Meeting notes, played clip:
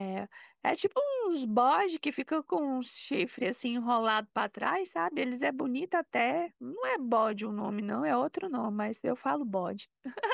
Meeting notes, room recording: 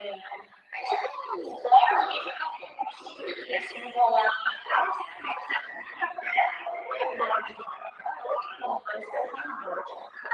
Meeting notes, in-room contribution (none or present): none